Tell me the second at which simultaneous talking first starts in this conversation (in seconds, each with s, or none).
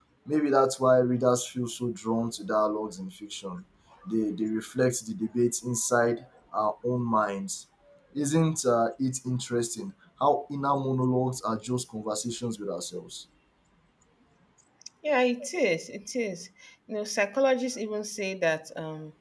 none